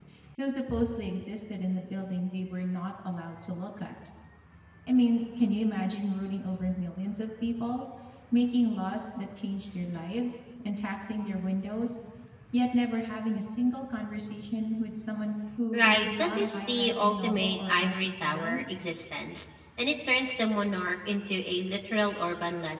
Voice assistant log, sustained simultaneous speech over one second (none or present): present